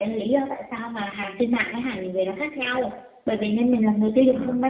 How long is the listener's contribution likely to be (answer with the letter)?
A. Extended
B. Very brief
B